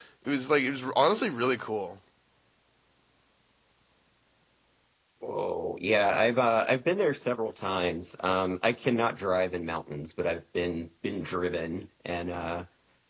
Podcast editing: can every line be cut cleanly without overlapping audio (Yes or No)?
Yes